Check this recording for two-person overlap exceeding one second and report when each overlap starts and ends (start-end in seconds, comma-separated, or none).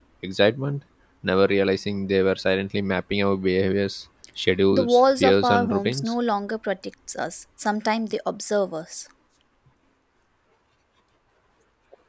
4.7-6.1